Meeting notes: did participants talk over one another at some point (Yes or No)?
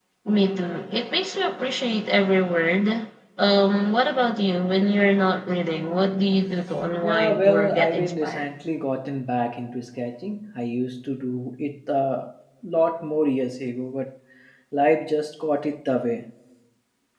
Yes